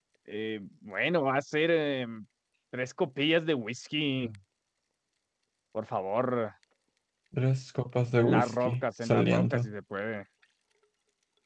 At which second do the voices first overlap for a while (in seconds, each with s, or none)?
8.2 s